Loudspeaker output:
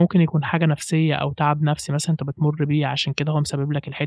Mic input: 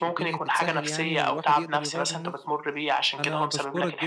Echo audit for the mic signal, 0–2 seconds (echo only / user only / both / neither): both